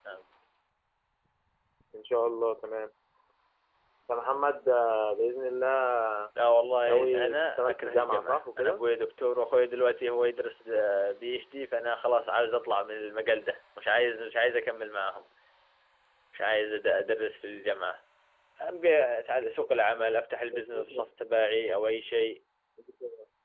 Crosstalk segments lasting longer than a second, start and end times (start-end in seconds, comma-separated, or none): 6.8-8.8